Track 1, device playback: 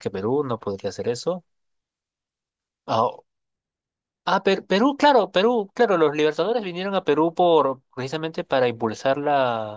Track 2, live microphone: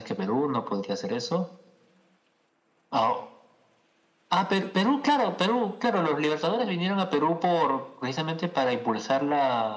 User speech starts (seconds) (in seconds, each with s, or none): none